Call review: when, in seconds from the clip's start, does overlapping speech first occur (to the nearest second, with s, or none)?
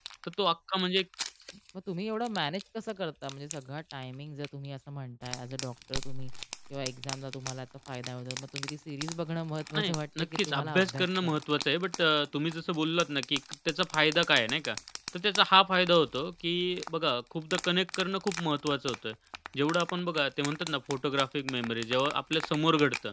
10 s